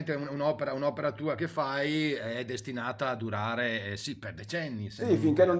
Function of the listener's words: taking over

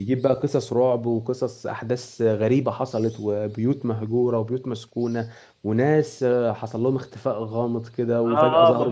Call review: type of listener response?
taking over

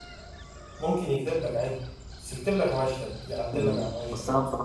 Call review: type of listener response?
taking over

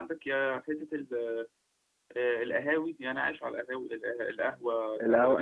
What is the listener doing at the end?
taking over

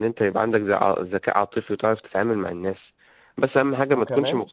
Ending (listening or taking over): listening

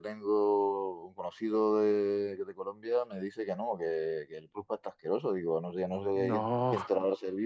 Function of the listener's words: listening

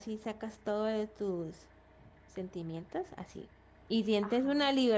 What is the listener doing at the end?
listening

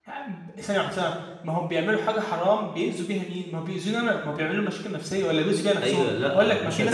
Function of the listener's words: taking over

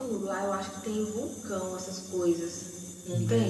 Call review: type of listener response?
taking over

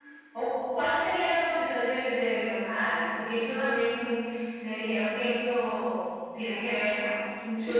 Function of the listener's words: taking over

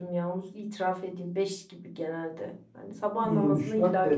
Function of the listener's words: taking over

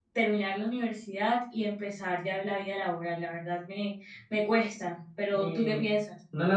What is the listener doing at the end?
taking over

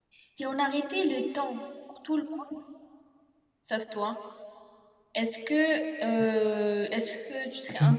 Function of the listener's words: taking over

